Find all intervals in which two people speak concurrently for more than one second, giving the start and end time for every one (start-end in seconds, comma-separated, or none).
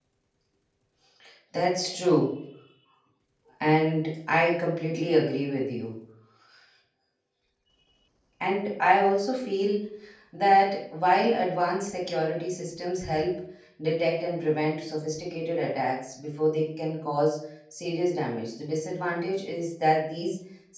none